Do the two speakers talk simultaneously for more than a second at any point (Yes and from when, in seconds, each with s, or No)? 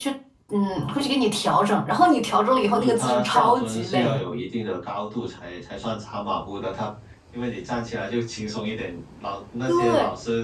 Yes, from 2.8 s